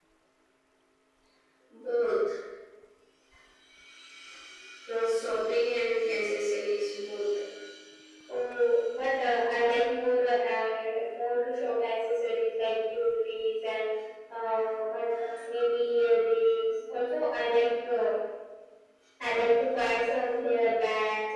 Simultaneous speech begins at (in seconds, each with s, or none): none